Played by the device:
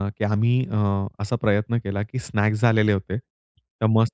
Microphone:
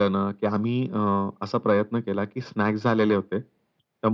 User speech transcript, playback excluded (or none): none